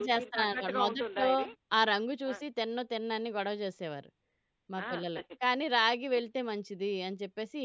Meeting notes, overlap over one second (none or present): present